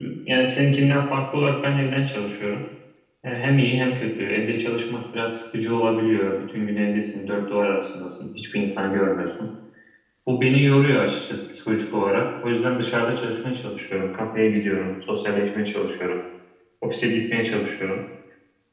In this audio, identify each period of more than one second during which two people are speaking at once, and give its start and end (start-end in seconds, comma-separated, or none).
none